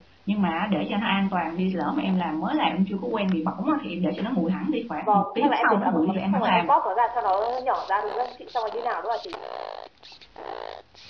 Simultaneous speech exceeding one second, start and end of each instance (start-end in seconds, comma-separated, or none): 5.0-6.7